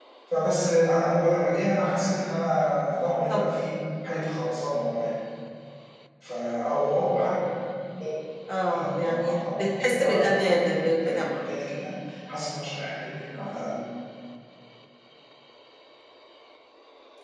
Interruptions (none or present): present